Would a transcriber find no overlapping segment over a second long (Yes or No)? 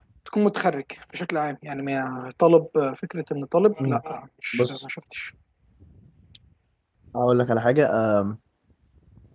Yes